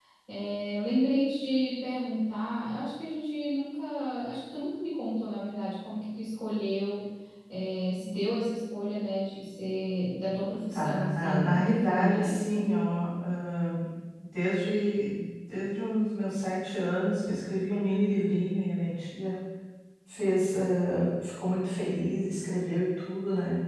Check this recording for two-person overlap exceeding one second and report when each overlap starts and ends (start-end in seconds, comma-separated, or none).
10.7-12.7